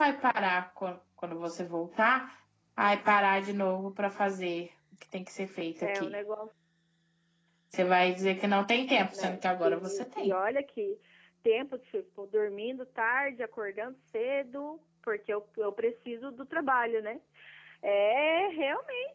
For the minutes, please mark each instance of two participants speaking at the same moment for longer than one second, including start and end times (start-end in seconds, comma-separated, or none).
9.1-10.3